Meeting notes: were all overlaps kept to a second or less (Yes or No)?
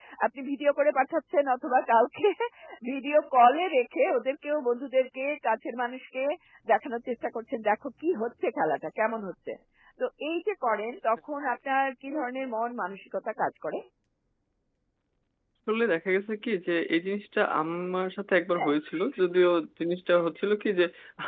Yes